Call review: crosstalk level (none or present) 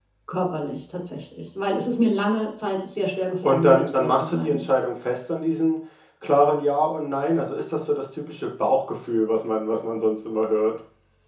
present